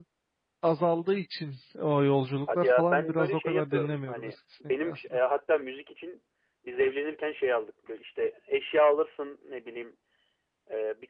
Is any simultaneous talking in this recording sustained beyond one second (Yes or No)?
Yes